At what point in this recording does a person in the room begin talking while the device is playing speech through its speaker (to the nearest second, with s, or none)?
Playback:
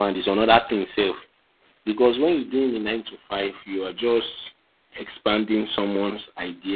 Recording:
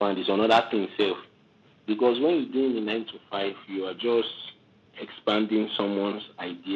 none